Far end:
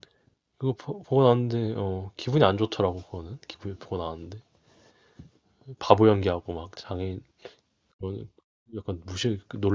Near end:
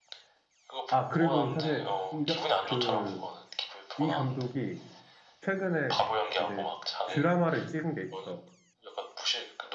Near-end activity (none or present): present